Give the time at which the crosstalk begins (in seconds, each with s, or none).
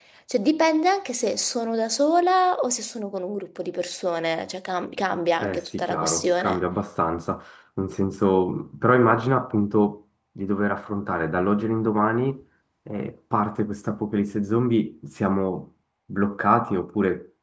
5.4 s